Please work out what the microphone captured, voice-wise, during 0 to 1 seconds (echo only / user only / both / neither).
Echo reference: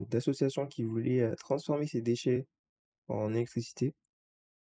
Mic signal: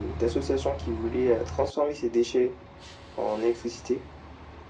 echo only